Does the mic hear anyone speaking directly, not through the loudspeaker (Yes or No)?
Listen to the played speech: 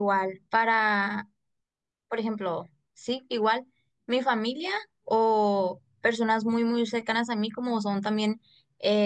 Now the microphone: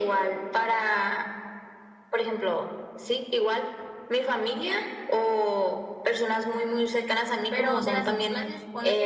Yes